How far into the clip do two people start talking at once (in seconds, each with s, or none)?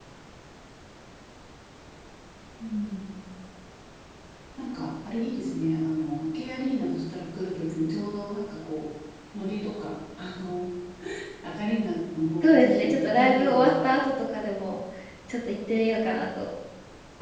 12.4 s